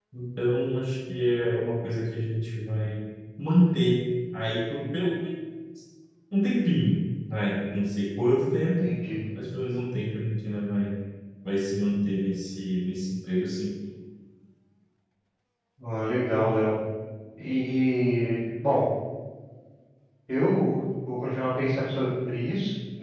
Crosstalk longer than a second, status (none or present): none